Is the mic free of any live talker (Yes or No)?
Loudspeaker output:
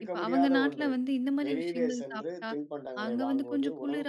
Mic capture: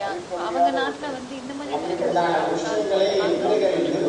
No